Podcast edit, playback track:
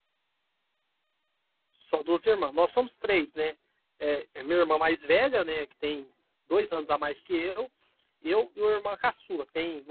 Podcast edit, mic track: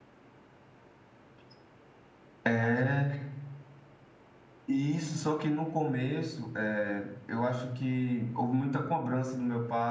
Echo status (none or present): none